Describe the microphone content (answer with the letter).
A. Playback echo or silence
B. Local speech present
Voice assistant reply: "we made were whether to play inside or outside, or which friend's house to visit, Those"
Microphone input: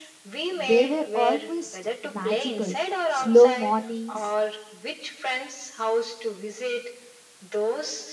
B